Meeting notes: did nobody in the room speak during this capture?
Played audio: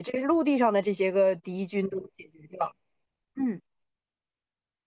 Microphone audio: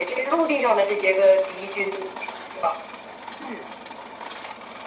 Yes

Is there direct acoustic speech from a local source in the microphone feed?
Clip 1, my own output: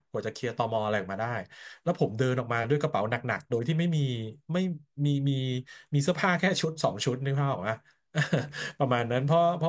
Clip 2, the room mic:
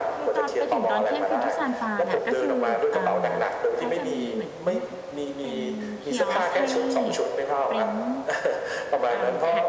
Yes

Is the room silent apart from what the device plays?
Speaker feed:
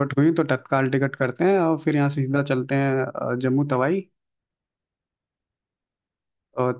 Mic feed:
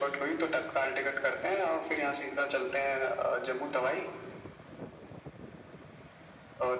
Yes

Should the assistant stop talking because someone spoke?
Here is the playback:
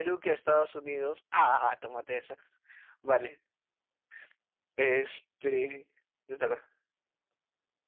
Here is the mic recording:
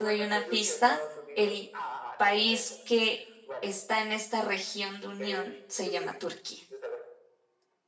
Yes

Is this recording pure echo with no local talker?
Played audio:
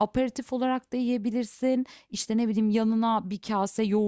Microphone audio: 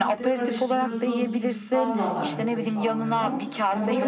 No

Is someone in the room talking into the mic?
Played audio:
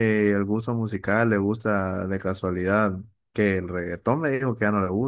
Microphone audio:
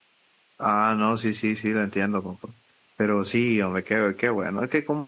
Yes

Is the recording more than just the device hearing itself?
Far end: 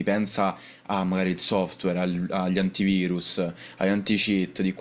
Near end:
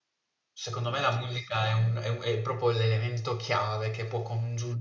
Yes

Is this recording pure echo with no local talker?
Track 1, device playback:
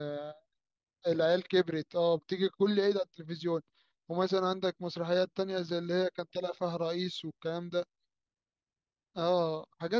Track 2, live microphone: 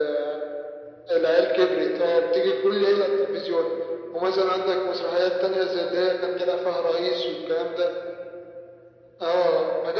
Yes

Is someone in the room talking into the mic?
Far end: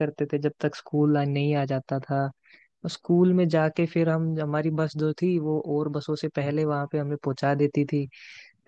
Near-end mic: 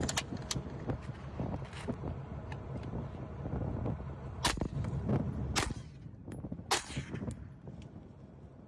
No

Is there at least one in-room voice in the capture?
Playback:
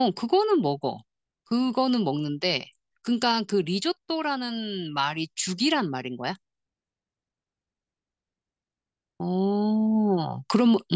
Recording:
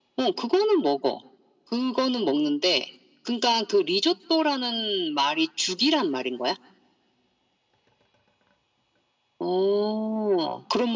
No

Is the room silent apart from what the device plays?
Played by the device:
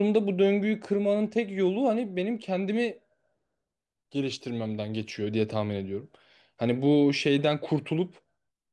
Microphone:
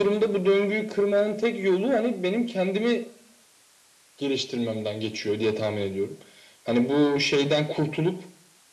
Yes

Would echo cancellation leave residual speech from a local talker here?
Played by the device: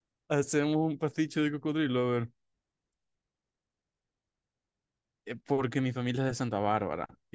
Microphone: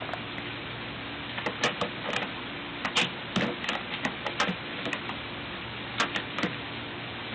No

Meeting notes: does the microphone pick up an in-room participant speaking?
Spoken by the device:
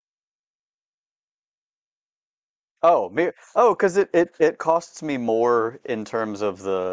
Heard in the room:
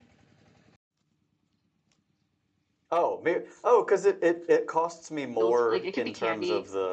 Yes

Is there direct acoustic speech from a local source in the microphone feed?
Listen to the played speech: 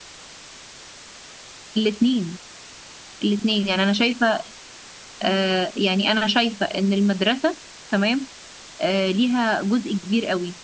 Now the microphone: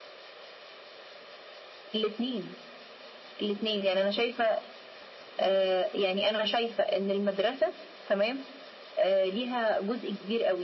No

